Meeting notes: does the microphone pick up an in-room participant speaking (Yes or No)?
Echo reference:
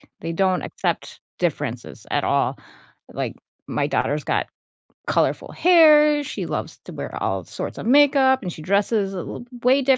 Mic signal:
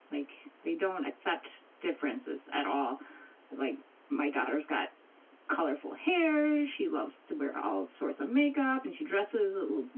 No